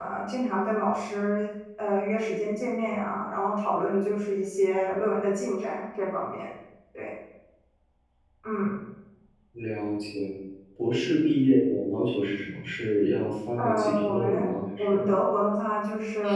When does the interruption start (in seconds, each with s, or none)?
13.6 s